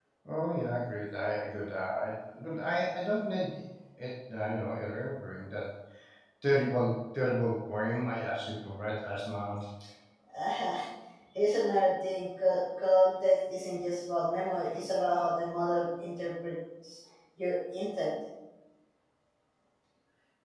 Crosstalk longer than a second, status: none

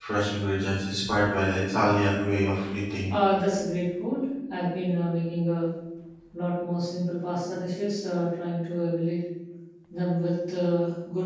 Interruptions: none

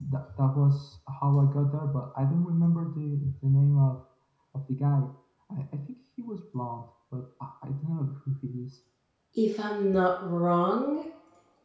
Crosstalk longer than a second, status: none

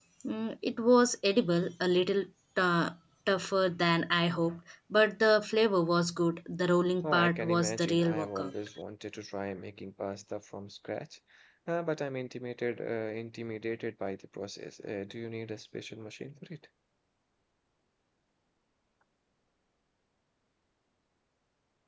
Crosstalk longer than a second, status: present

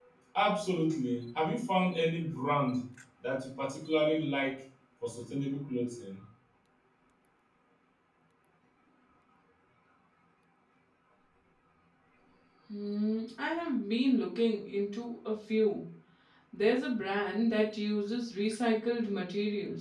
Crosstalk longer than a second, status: none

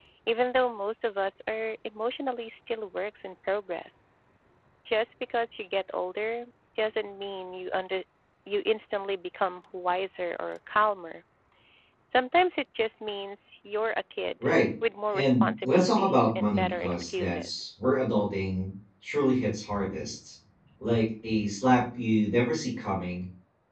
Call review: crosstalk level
present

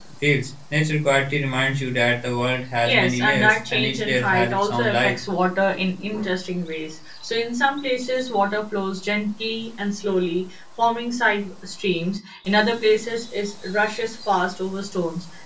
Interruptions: present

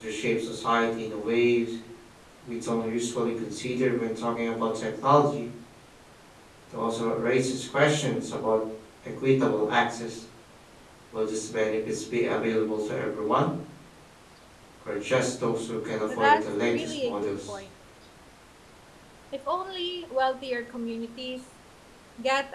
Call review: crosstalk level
present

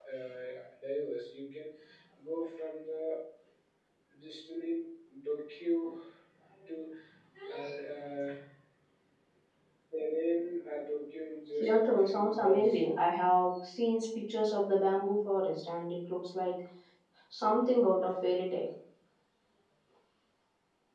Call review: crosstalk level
present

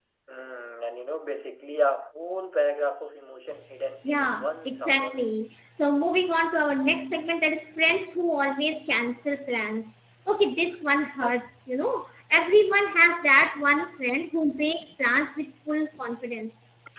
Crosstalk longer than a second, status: present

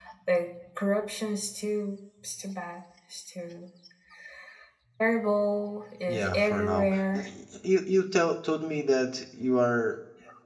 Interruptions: present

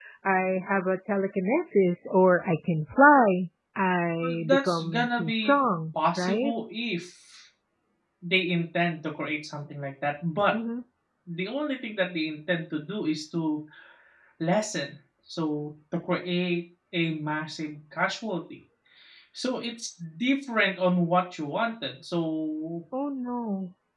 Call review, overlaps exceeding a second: present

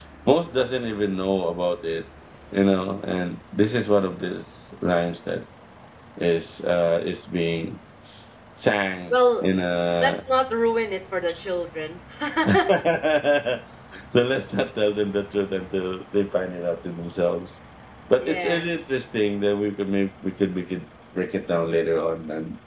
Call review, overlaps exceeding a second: none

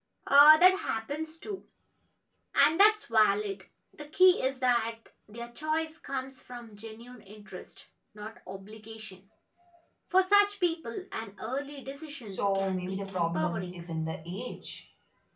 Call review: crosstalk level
present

